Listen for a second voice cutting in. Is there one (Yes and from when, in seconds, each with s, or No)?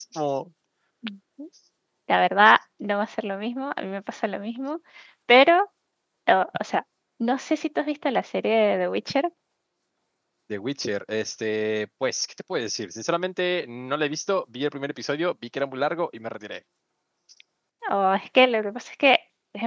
No